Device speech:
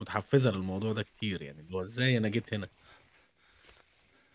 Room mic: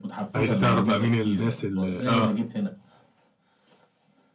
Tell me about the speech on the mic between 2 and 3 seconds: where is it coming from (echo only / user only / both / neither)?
both